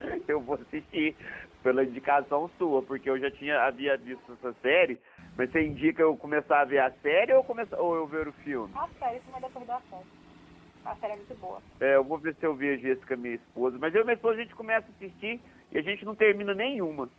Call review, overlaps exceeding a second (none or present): none